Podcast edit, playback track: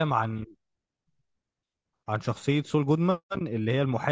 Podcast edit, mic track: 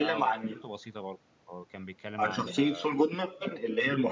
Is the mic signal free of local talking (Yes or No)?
No